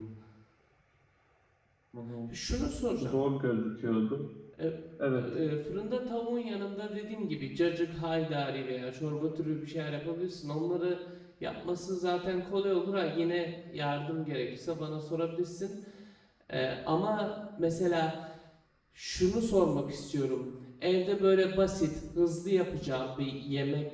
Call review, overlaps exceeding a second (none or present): none